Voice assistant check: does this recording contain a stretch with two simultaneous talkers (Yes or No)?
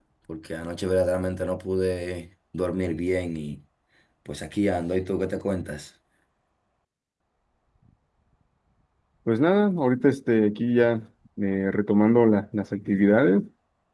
No